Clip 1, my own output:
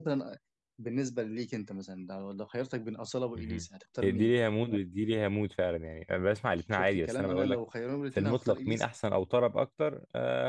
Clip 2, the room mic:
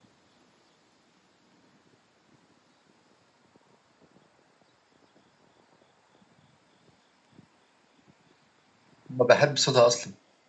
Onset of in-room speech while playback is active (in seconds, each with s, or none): 9.1 s